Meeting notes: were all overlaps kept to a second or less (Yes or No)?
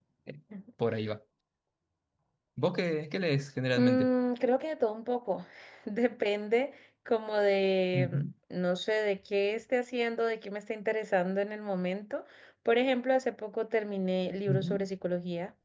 Yes